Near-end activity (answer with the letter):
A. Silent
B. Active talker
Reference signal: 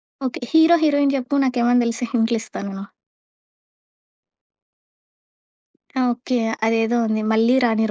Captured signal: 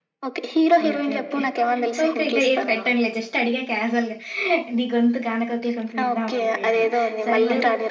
B